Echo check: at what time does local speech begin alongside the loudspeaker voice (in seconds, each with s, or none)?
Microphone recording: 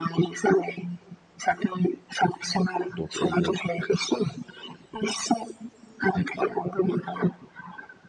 2.9 s